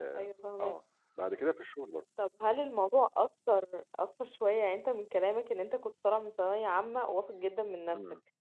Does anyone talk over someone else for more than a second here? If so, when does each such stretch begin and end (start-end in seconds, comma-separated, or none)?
none